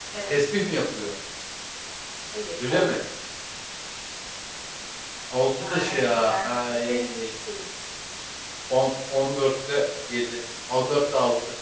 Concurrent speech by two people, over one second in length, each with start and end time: 5.6-7.0

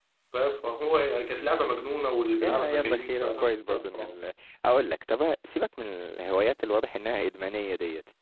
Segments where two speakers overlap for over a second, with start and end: 2.4-4.1

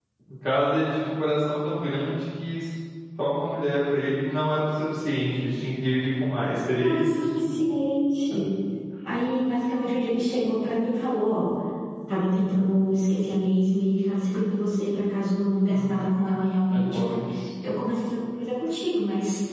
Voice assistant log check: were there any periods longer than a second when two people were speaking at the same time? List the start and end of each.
none

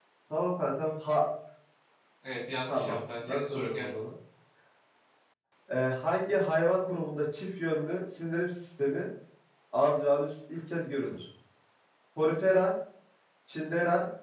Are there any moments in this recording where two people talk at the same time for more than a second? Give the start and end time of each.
2.7-4.0

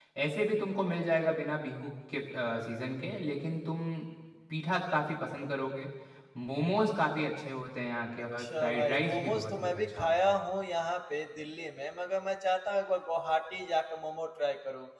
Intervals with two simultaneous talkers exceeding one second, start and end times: 8.4-10.4

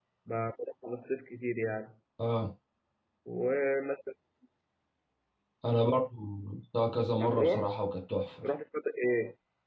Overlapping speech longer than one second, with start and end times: none

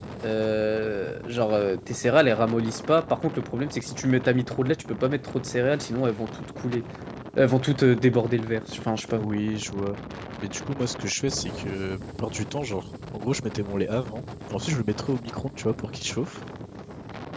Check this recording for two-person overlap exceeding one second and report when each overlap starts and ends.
none

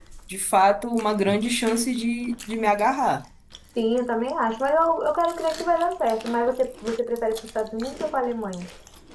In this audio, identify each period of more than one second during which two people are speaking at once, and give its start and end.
none

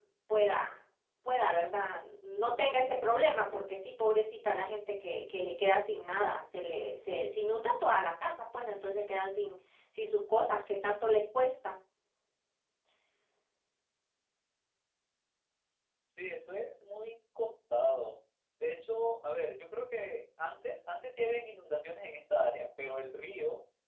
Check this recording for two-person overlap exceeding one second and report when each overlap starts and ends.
none

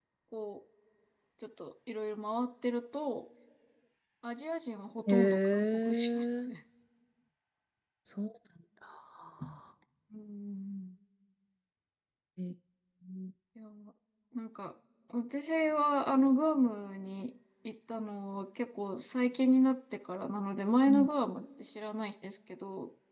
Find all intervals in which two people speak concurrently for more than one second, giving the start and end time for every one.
5.1-6.5

